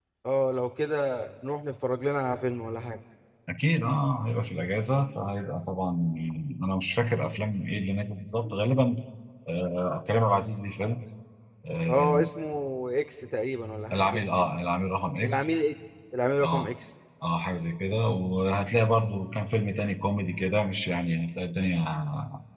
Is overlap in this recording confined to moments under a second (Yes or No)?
Yes